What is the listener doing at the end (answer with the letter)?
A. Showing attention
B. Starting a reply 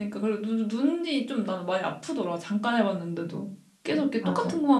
A